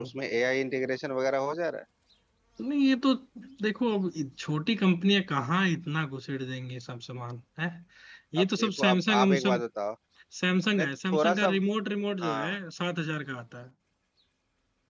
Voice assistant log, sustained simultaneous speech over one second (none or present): present